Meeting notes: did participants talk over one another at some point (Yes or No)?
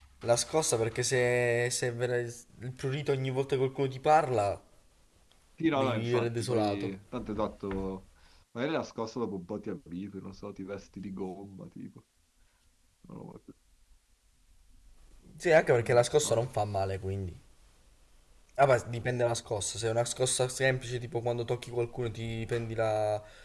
Yes